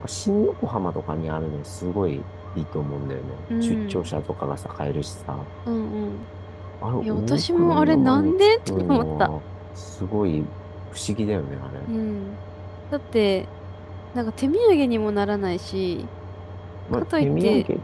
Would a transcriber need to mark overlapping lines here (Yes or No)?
Yes